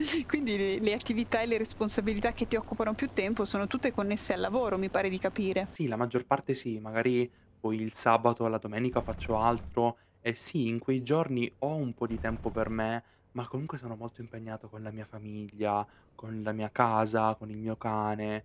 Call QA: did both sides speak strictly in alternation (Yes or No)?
Yes